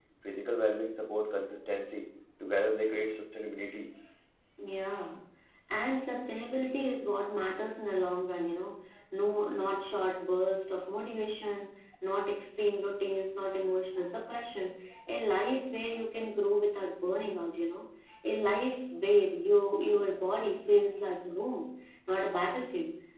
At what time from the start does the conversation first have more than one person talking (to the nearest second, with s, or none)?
none